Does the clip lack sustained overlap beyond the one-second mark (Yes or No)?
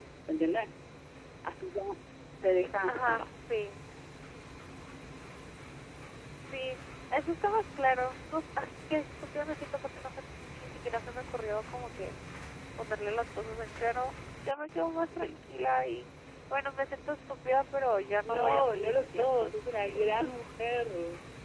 No